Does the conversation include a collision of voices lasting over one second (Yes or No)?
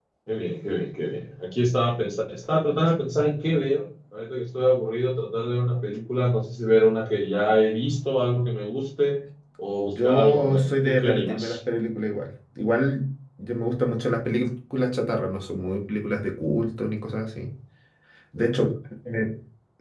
Yes